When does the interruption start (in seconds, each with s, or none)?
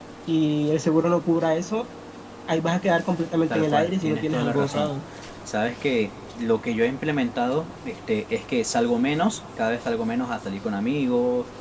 3.5 s